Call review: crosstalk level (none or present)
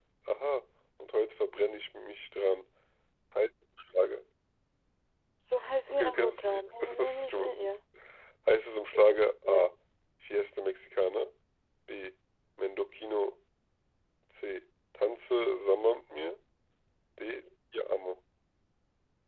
present